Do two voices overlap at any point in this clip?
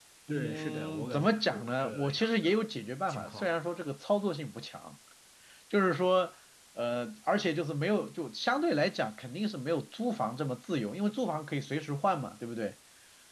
Yes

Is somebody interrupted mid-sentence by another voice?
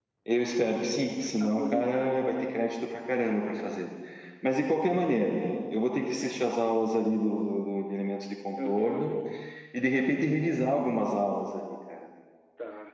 Yes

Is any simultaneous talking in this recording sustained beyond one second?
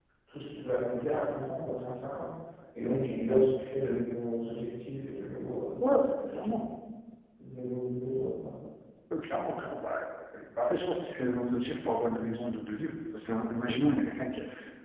No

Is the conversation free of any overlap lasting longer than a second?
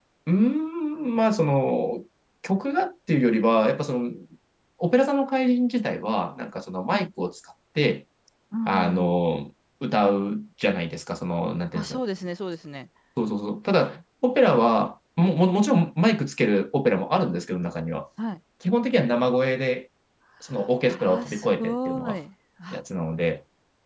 No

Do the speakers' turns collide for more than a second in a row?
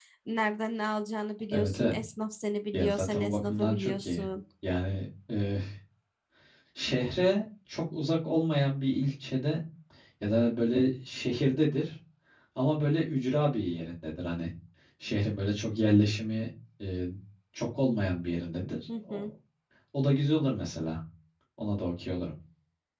Yes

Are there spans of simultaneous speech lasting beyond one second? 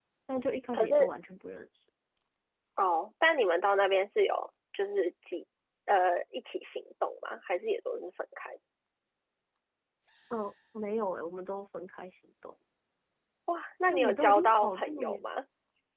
Yes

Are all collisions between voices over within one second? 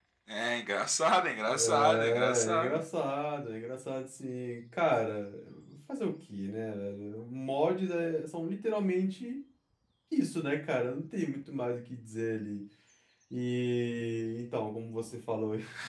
No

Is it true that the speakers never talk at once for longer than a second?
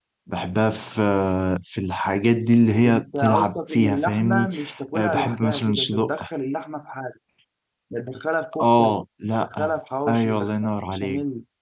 No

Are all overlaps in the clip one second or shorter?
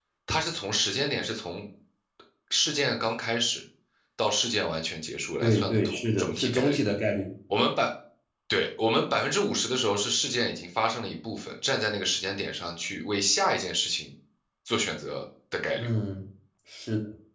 No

